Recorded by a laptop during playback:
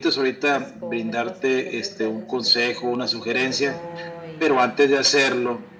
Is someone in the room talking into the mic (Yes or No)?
Yes